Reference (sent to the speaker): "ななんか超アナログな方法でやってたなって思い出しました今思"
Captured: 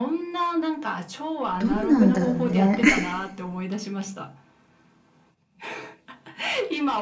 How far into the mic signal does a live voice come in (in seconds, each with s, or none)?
1.6 s